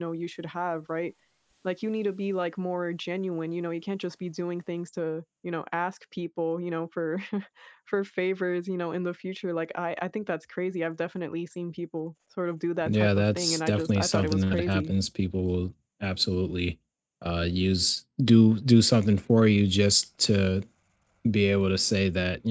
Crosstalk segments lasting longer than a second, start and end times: 12.8-14.9

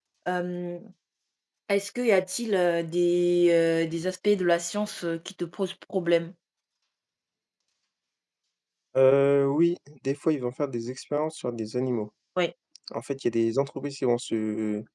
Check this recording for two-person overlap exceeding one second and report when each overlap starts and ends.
none

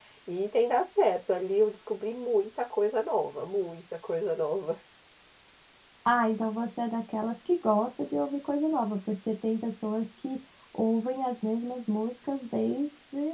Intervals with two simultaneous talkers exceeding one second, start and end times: none

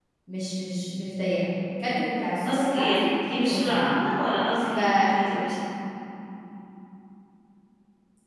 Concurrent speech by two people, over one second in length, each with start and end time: 2.4-3.9

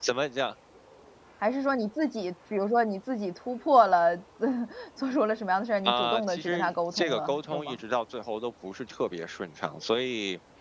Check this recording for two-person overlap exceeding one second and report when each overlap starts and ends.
5.8-7.8

